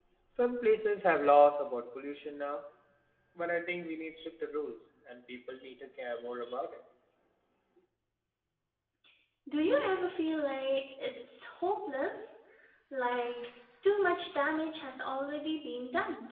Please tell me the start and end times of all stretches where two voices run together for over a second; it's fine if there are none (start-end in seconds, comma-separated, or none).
none